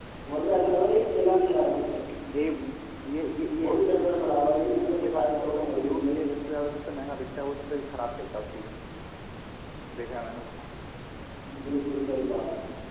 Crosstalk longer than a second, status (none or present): present